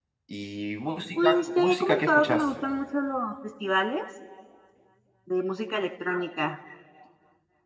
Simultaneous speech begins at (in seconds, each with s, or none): 1.1 s